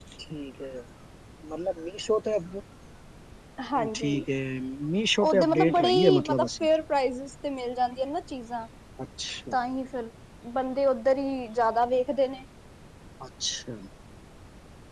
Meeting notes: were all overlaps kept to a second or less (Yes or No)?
No